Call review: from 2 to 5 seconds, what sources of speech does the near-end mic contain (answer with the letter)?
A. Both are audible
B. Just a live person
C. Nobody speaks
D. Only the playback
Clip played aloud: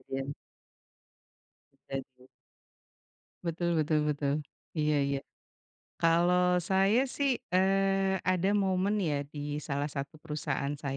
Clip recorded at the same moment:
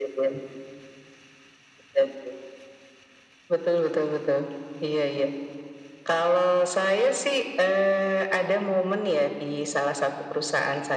D